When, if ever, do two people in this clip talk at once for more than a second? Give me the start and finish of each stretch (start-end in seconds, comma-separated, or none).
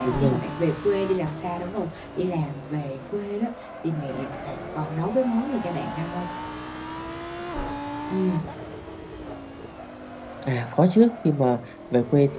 none